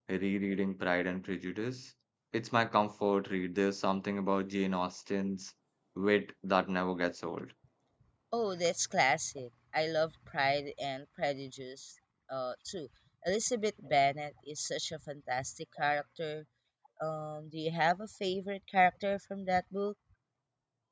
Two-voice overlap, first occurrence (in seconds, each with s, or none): none